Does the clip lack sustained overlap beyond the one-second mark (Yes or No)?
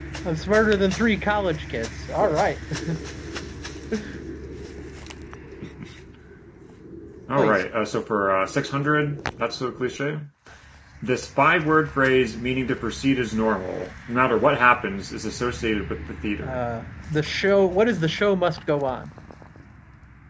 Yes